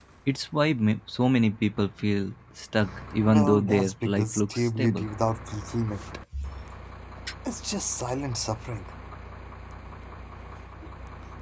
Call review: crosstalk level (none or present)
present